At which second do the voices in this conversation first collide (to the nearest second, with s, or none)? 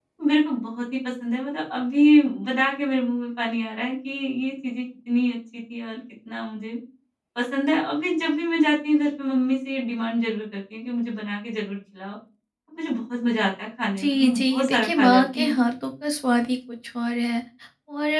14 s